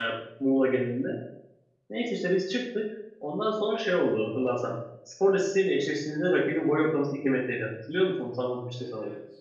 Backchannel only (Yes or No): No